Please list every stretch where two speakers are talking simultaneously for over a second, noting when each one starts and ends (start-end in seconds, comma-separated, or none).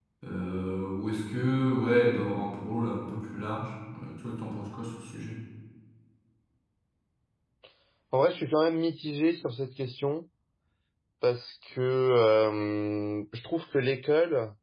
none